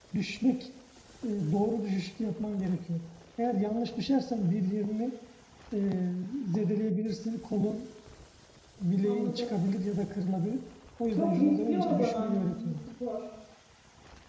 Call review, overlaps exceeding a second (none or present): present